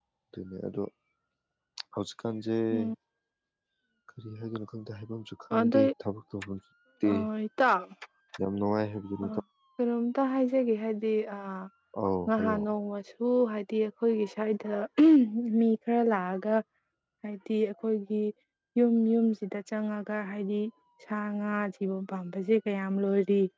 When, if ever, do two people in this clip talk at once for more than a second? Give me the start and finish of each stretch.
none

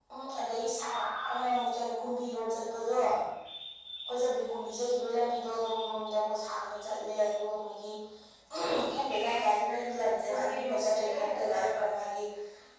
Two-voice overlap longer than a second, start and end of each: 10.3-11.8

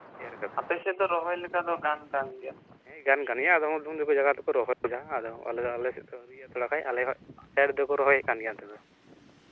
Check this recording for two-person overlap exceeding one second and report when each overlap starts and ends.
none

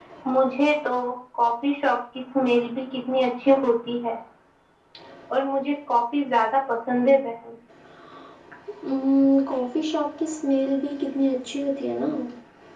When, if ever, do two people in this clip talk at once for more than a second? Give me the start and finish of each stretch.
none

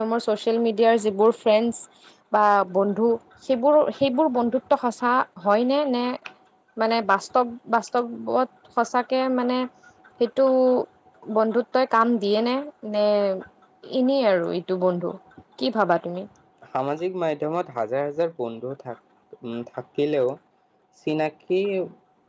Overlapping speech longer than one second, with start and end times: none

